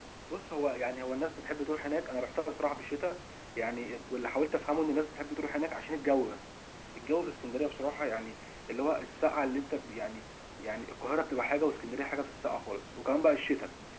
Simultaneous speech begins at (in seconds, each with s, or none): none